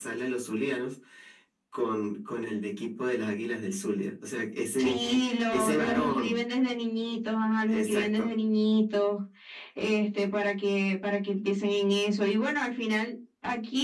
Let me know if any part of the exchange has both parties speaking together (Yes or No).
Yes